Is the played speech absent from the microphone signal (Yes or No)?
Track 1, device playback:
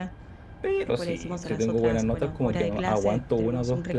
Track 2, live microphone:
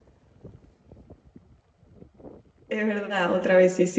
Yes